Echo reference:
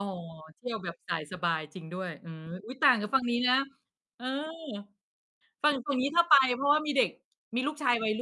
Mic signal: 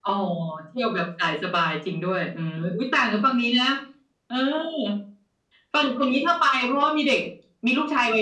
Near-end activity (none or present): none